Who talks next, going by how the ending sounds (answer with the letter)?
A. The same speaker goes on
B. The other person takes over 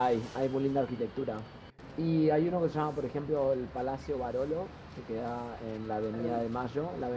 A